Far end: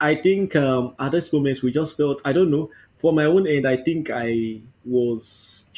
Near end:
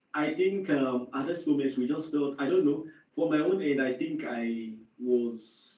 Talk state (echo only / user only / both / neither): echo only